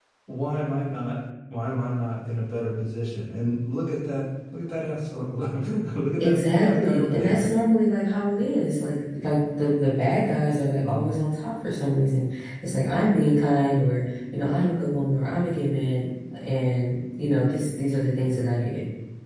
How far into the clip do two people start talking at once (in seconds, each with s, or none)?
6.2 s